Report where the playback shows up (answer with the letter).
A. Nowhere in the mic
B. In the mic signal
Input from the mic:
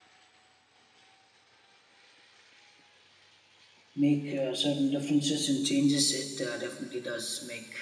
A